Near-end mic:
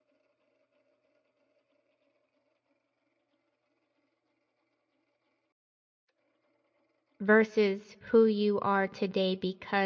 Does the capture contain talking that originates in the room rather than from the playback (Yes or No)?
Yes